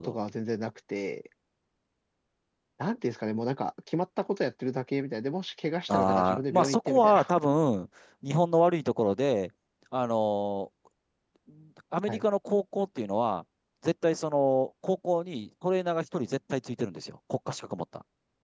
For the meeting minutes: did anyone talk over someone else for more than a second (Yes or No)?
Yes